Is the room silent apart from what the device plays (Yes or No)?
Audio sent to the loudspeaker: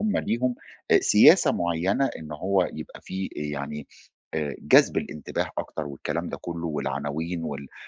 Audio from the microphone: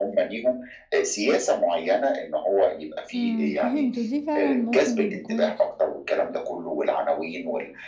No